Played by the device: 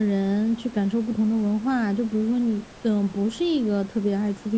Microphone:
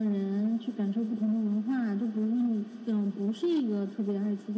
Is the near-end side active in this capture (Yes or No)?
No